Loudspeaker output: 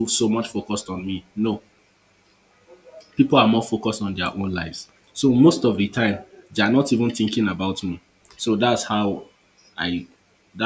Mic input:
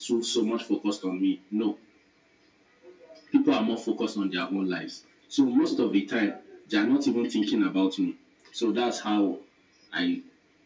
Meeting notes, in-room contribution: none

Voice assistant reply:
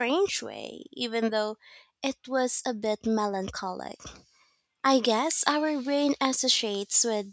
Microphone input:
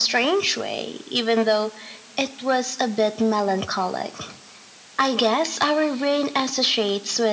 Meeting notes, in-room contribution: none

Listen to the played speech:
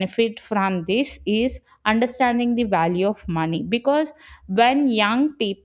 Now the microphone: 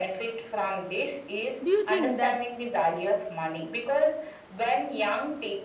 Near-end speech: present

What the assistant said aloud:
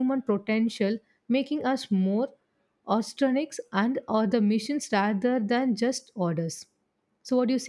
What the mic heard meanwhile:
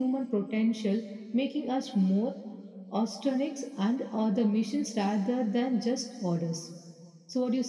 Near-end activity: none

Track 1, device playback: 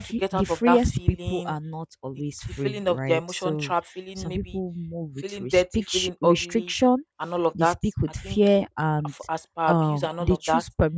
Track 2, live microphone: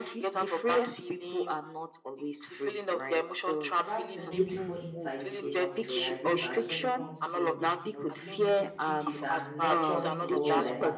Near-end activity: present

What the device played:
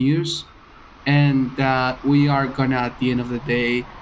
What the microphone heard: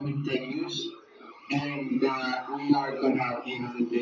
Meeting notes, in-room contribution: none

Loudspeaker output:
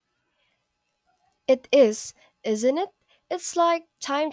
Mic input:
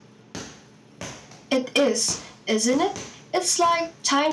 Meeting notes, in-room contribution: none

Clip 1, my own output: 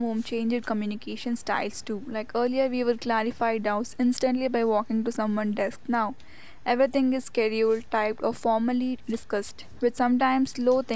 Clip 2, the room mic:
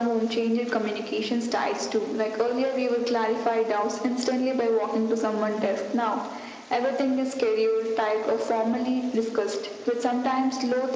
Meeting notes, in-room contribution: none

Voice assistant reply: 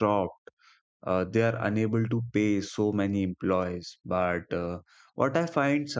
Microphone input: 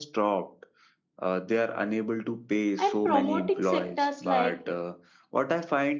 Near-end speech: present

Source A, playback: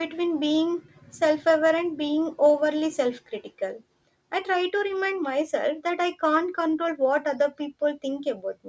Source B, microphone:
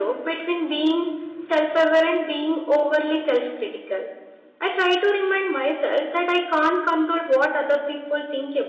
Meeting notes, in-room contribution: none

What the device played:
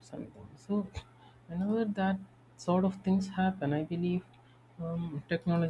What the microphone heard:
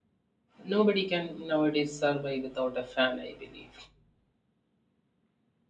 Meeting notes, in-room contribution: present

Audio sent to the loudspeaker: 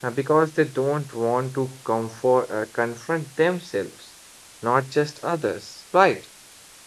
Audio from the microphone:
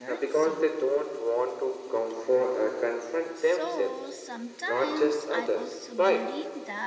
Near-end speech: present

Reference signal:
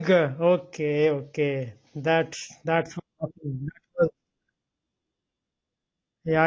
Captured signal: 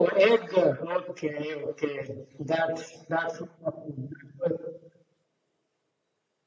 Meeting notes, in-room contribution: none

